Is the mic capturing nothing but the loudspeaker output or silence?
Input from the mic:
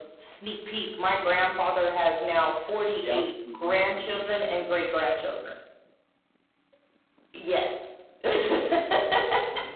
No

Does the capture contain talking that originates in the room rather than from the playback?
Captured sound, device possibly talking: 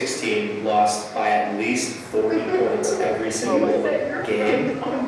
Yes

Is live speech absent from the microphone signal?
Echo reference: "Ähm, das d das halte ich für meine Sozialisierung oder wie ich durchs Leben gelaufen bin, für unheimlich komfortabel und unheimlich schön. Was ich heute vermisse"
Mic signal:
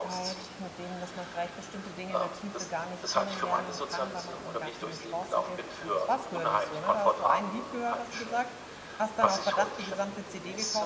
No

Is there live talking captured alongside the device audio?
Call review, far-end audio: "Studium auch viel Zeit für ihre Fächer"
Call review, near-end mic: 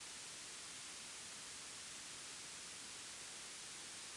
No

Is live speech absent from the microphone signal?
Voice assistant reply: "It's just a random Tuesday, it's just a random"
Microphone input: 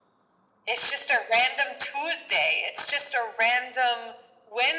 Yes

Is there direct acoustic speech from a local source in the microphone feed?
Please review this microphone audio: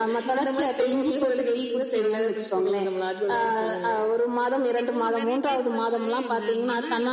Yes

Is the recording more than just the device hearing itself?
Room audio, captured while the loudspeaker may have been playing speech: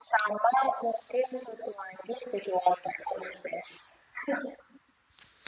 No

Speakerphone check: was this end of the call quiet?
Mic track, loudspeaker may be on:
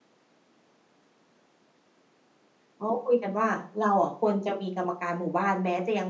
No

